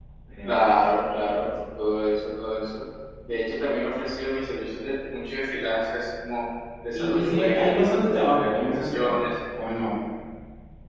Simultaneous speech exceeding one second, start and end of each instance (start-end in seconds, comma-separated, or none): 6.9-9.2